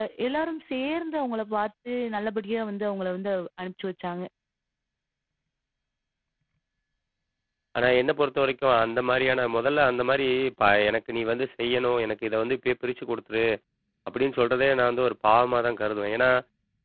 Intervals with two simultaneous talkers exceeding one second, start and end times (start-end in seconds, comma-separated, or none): none